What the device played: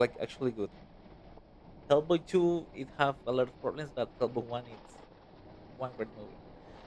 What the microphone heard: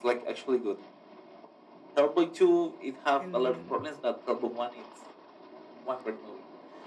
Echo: present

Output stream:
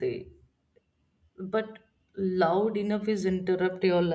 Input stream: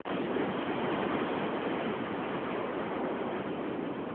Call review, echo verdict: none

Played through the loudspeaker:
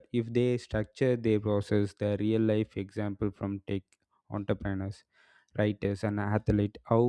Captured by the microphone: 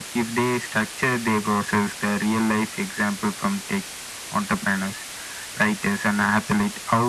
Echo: present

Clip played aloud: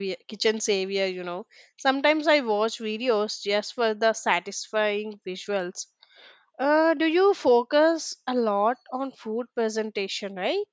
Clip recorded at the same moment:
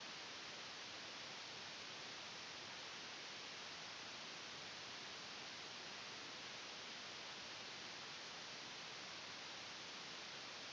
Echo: none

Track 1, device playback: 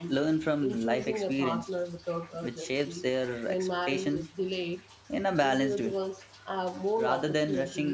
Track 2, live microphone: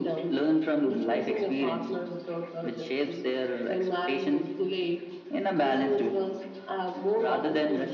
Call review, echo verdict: present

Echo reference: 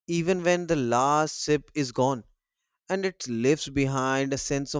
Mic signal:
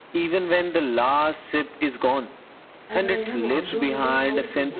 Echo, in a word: present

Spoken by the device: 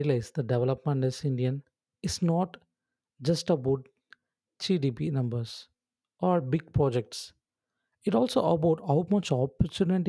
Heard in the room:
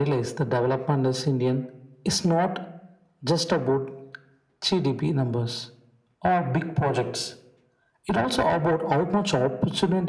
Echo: present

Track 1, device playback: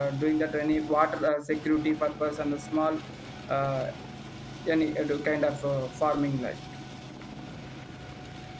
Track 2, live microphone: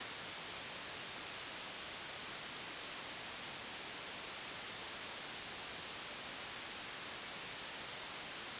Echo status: none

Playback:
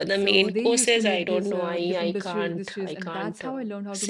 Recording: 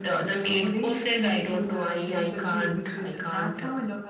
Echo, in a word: present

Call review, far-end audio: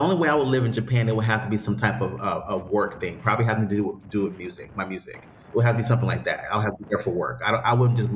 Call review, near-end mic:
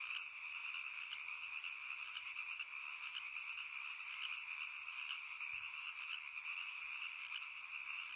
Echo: none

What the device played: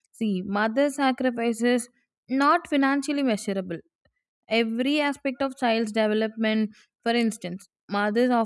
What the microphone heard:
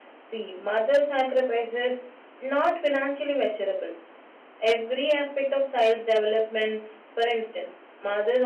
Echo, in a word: present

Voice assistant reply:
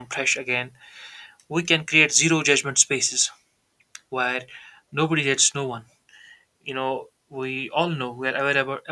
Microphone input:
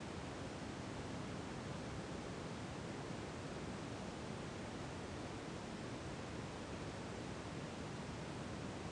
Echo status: none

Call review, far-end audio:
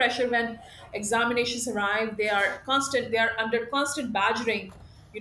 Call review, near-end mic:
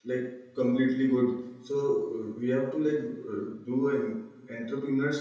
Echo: none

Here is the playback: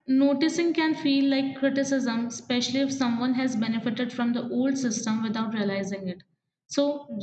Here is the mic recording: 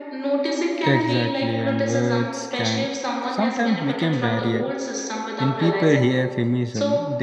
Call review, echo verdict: present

